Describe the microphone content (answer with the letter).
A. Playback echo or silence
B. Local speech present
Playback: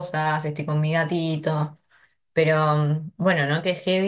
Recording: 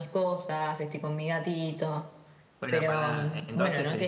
B